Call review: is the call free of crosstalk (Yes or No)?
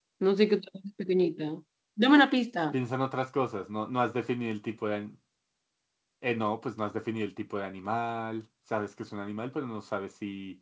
Yes